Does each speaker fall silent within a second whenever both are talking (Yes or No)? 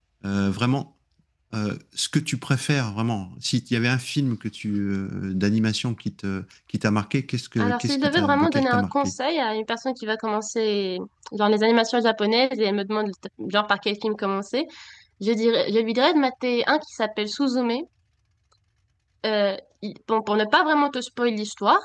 No